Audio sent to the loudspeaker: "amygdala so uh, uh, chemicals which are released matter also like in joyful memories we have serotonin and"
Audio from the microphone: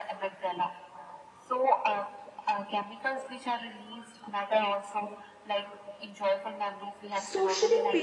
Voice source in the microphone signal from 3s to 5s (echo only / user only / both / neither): echo only